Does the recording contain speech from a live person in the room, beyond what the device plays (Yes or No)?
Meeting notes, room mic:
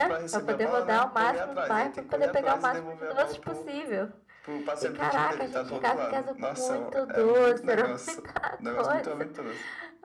Yes